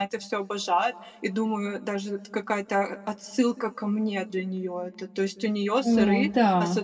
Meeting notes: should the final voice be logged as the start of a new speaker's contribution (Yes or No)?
No